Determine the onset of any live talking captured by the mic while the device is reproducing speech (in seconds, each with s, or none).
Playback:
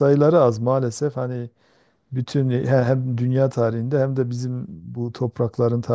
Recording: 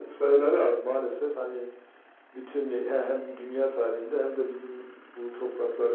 none